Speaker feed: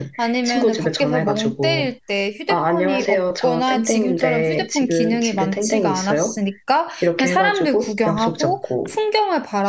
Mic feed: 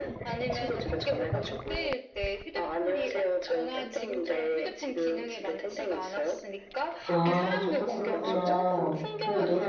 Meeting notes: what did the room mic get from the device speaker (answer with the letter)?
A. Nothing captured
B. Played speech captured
B